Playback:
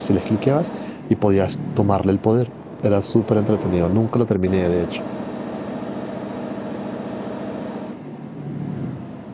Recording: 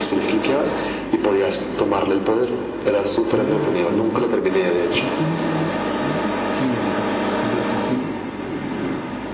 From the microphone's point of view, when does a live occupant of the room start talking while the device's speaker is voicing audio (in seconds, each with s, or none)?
3.3 s